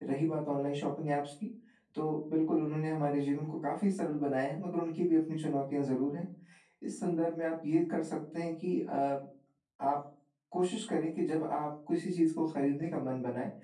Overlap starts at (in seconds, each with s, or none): none